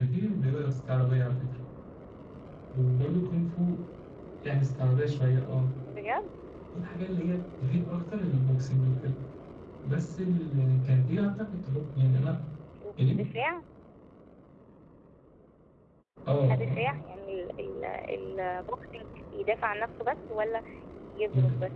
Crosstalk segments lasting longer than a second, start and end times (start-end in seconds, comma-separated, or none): none